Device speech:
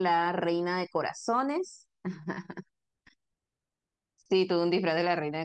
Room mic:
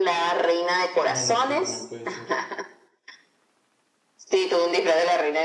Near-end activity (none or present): present